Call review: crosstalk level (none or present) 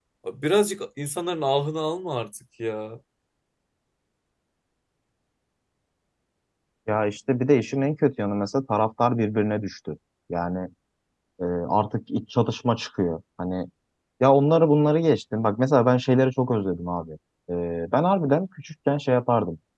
none